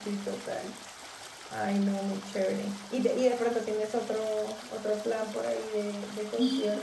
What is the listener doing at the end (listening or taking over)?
taking over